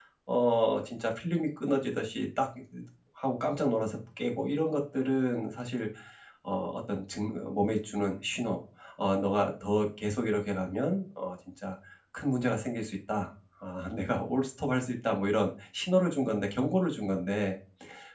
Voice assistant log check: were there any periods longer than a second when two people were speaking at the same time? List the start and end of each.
none

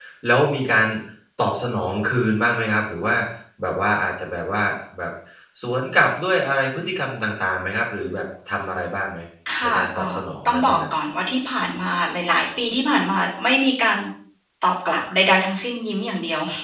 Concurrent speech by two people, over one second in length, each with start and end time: 9.6-10.9

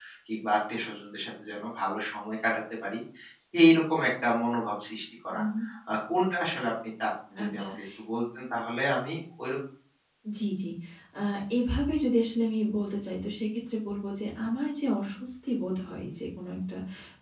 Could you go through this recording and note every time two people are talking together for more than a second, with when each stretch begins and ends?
none

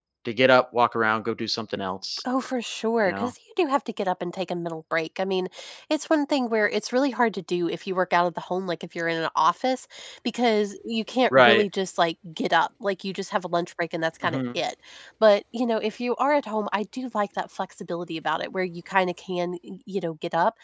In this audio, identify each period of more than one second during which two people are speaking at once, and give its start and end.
none

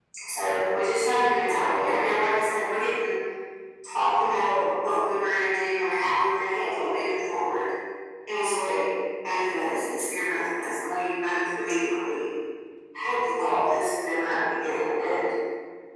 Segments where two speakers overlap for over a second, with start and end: none

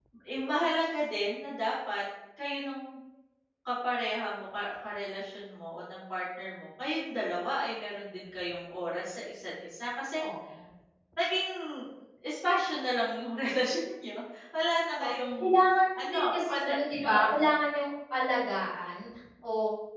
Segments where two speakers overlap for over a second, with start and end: 16.0-17.3

